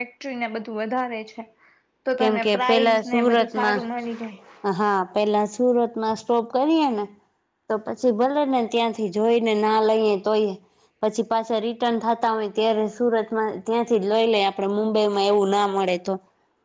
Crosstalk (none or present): present